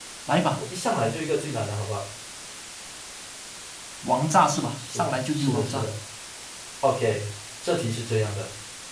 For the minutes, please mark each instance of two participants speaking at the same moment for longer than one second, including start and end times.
4.5-5.9

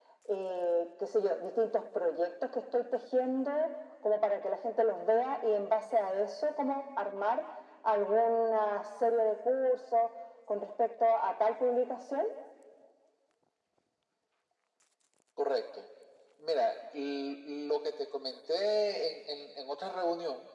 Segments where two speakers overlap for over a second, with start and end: none

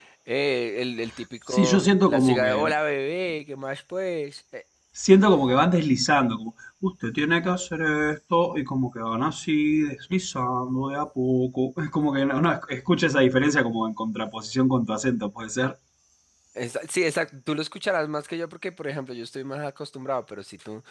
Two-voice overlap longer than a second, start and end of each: 1.5-2.7

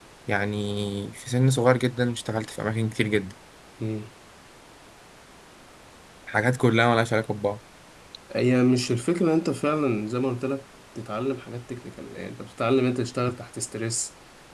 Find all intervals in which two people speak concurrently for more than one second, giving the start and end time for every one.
none

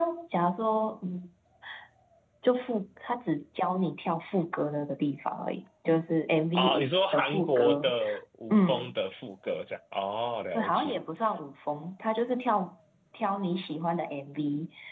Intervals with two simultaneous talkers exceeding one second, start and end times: 6.5-7.9

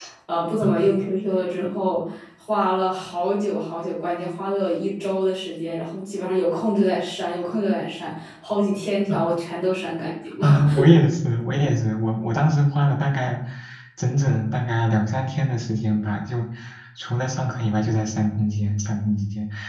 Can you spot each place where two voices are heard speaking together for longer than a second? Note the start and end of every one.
none

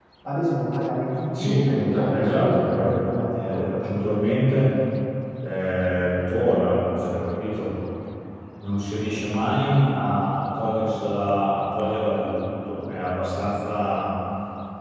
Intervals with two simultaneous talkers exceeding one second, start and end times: 1.4-4.2

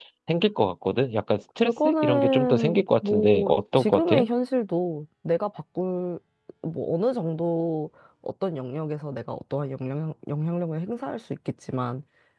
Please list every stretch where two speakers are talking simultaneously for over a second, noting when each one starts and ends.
1.6-4.2

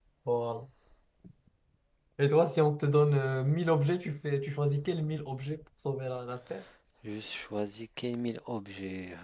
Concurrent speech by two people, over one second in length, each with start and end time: none

